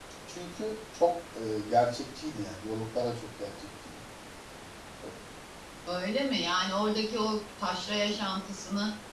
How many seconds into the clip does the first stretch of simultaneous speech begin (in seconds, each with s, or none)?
none